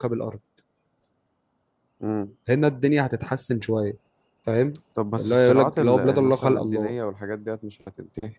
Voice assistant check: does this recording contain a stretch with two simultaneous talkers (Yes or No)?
Yes